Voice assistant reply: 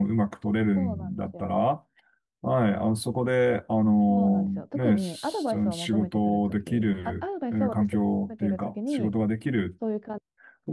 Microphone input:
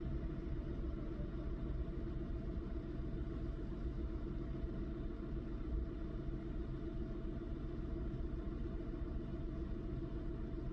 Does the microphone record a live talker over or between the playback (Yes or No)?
No